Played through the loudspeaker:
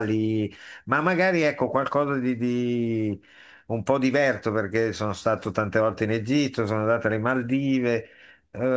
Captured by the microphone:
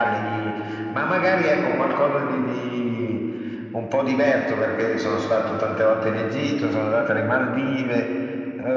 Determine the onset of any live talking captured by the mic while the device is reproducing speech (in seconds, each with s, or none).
none